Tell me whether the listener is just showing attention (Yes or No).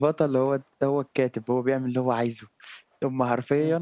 Yes